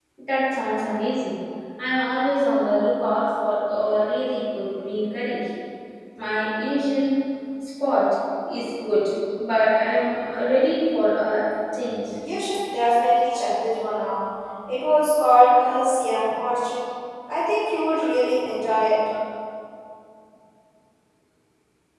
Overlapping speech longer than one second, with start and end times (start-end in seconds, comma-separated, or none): none